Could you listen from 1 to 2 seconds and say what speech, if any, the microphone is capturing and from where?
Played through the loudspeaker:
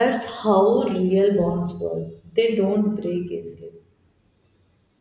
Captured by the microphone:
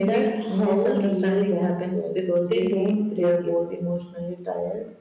both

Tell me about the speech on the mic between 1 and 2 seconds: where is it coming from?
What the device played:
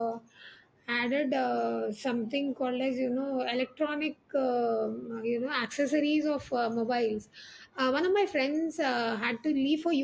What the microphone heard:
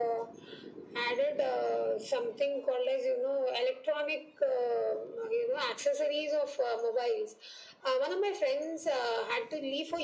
echo only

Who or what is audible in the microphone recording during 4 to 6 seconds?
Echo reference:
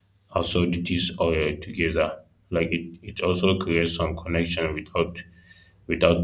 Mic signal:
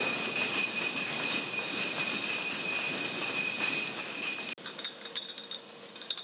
neither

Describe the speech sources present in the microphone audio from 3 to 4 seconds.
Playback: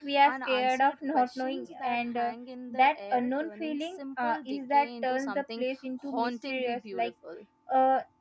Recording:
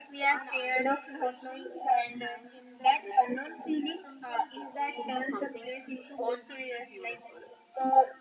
echo only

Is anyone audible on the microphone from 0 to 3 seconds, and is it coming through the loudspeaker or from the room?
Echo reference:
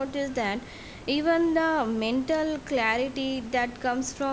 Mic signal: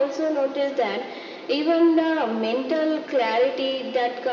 echo only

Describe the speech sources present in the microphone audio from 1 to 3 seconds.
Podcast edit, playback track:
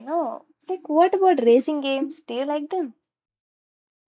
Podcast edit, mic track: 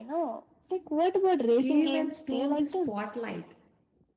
both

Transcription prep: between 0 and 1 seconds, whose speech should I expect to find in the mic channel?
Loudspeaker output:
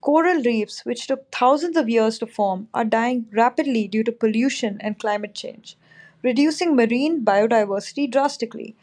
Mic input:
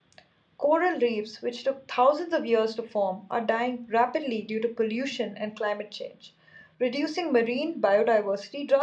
echo only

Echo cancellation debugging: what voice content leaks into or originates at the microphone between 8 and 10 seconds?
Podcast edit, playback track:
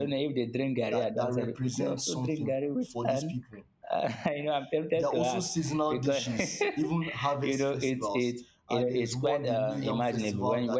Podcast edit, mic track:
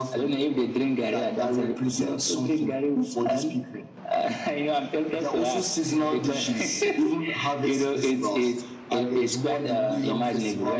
echo only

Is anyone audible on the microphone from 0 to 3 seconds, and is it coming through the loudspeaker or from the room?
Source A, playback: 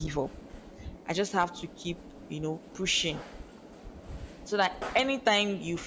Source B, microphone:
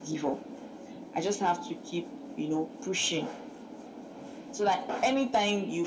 echo only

